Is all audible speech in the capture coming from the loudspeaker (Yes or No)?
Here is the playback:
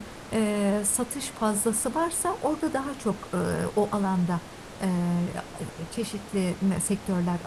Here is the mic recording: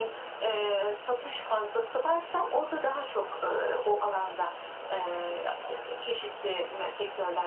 Yes